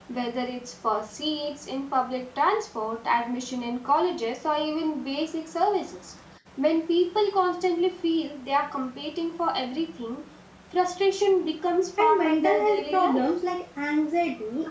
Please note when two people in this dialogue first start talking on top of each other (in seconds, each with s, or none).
12.0 s